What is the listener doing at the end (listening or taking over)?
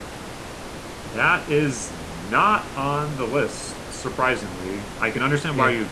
listening